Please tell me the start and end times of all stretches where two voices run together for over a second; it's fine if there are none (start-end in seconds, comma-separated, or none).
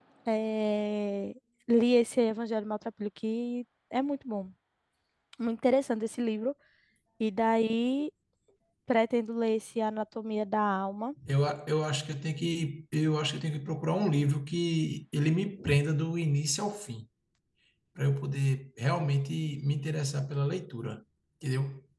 none